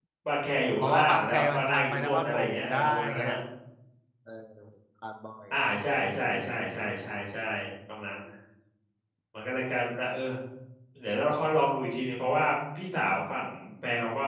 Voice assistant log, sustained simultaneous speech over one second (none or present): present